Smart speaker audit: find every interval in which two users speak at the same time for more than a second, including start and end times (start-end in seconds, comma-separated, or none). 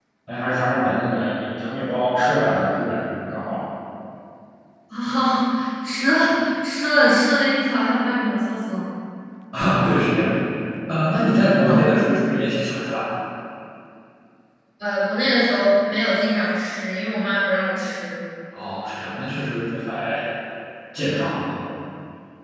none